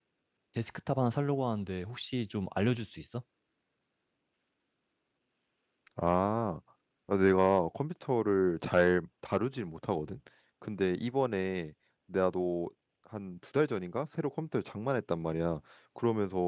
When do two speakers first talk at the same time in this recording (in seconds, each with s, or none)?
none